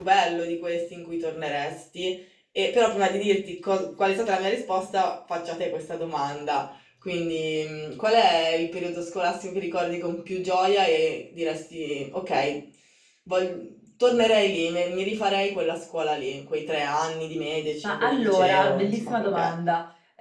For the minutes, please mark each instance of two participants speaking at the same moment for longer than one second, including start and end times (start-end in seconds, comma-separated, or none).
17.8-19.5